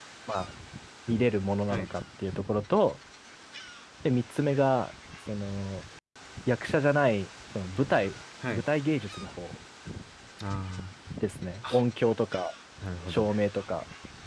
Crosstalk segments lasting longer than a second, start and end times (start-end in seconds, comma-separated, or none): none